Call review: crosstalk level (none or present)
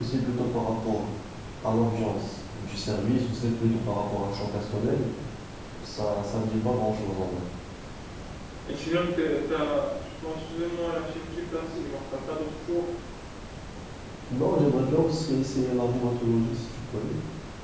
none